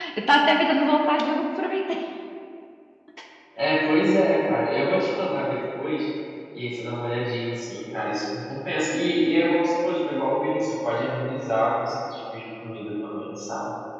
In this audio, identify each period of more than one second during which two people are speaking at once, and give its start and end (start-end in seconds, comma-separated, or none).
none